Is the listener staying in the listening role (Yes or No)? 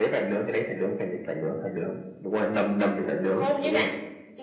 No